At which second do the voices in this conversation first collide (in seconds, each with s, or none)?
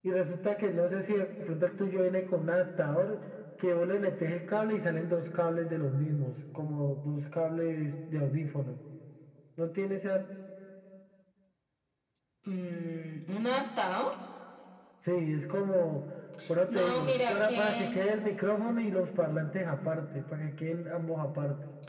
16.7 s